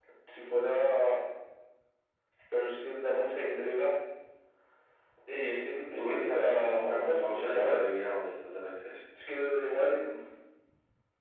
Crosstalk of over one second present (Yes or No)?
Yes